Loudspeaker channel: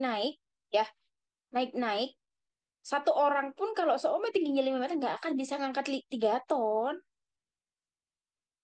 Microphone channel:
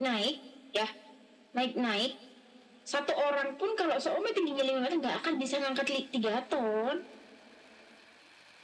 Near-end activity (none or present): none